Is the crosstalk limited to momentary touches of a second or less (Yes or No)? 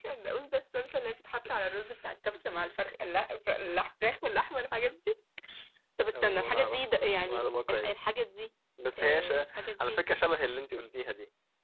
No